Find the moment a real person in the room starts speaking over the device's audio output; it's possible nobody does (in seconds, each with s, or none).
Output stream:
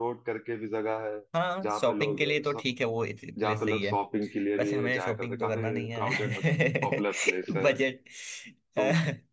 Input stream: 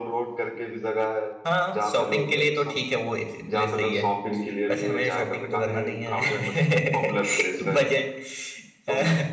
none